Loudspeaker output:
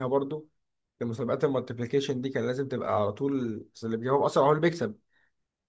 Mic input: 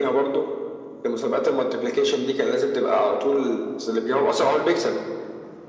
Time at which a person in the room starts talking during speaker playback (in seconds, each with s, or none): none